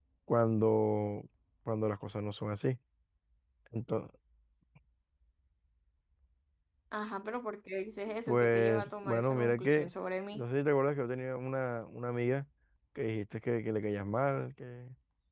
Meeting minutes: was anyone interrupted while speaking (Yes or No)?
Yes